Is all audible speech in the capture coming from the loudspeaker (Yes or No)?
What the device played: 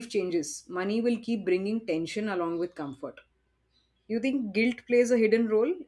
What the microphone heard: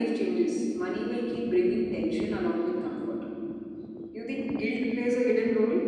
Yes